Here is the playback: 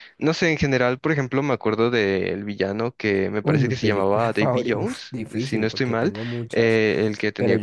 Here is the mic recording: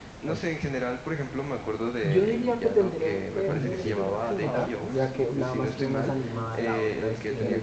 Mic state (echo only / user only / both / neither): both